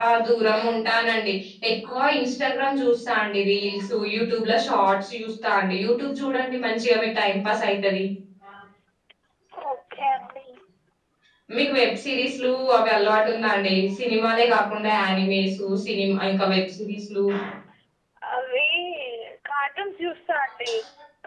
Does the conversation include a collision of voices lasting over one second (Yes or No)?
No